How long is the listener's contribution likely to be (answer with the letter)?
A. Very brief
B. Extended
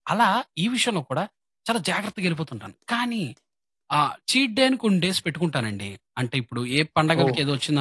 A